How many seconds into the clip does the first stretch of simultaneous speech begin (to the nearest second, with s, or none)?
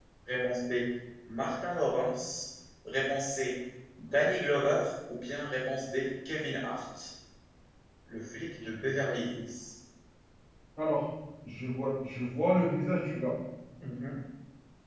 none